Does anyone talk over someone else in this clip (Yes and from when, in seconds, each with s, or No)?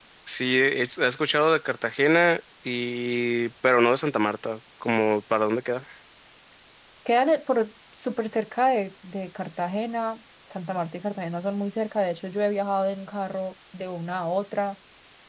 No